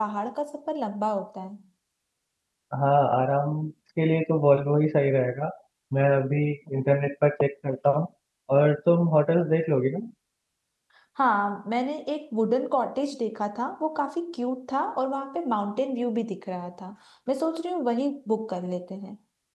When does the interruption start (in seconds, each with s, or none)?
none